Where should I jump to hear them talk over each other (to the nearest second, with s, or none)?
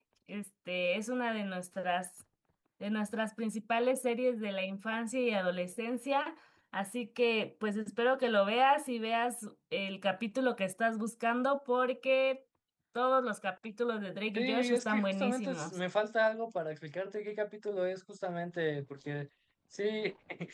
14 s